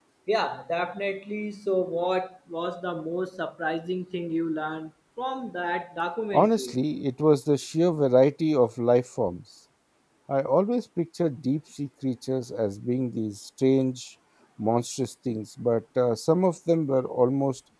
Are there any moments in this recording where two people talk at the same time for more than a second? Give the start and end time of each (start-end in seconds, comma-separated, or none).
none